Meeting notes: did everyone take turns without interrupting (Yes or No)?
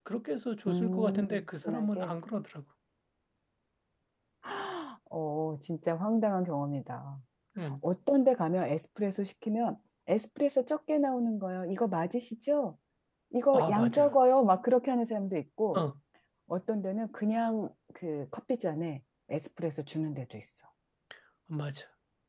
No